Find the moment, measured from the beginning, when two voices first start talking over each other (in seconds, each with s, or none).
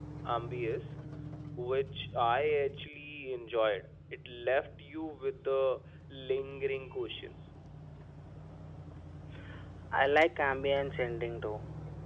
none